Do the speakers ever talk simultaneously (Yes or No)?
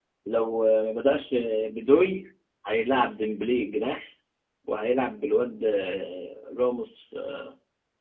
No